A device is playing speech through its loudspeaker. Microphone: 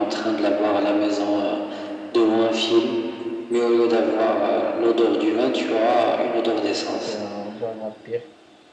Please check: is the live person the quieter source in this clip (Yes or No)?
Yes